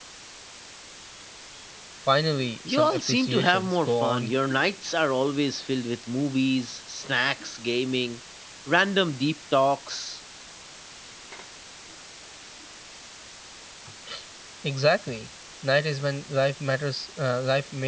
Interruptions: present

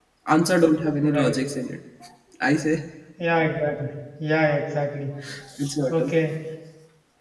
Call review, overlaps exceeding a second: none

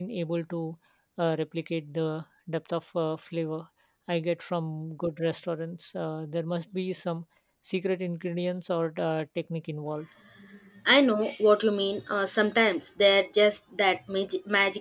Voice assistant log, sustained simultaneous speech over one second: none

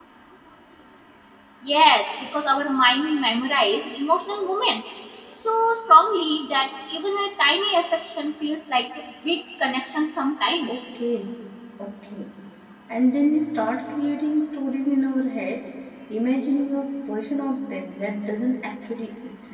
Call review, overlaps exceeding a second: none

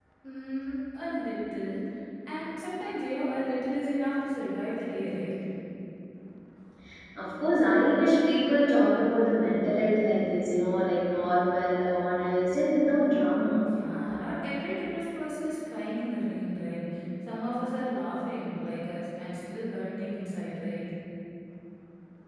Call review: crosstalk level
none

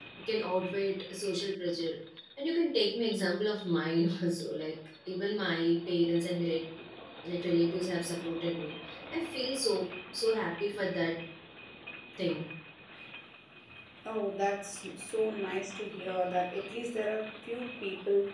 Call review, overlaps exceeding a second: none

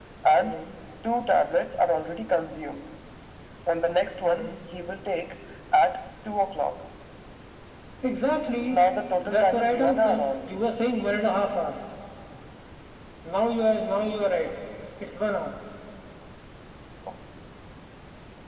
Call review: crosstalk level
present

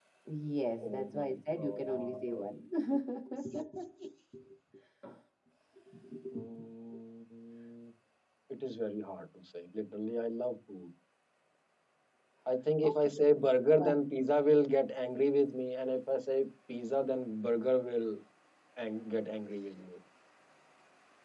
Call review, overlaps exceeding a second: present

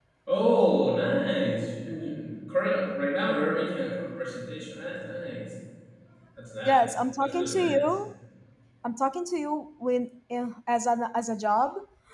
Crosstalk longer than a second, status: present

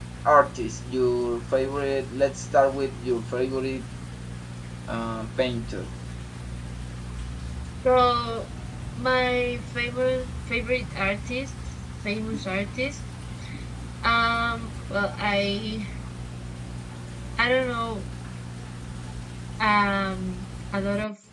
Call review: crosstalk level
none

